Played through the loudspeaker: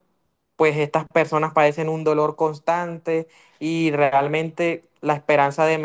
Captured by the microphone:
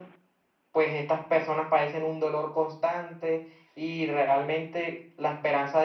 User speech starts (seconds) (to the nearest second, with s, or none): none